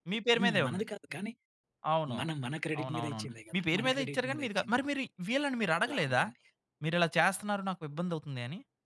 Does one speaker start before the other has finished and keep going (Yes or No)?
Yes